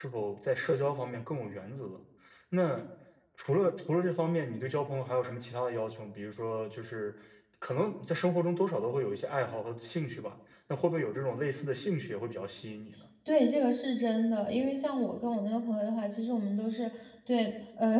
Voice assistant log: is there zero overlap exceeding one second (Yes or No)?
Yes